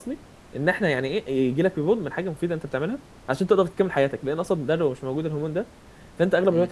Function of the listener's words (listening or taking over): listening